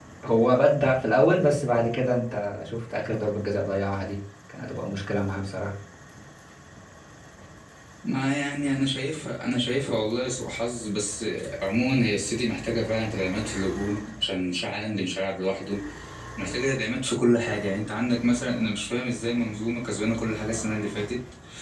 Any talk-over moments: No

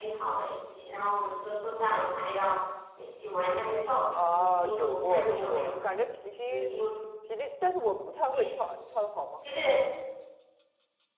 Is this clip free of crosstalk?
No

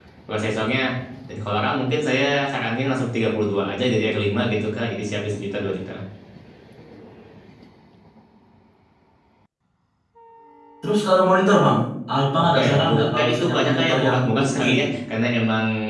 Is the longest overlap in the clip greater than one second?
Yes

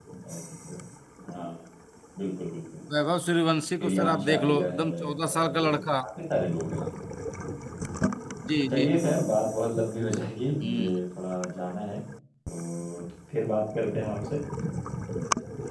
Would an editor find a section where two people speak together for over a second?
Yes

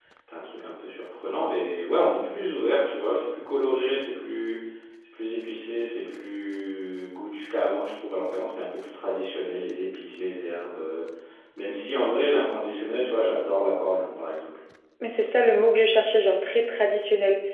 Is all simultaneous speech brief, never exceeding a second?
Yes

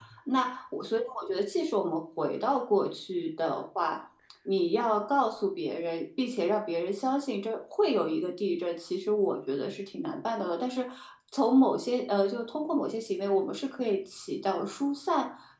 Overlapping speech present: No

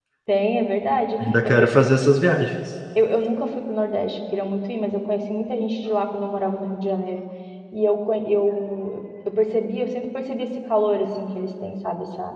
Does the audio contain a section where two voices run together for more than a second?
No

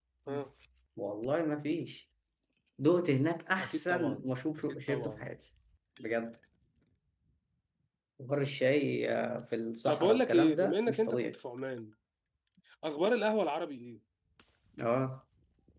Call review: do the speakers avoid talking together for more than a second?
No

